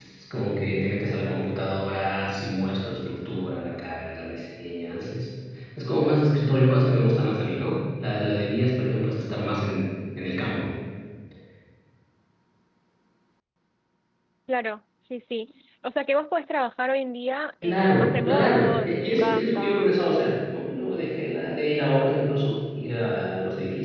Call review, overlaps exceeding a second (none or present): present